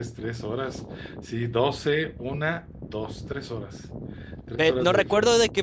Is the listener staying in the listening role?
No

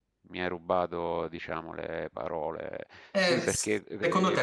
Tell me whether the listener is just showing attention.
No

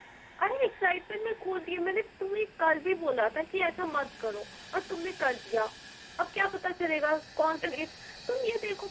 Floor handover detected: No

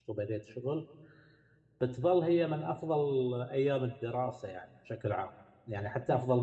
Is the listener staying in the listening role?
Yes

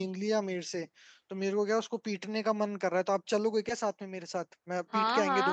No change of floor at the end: No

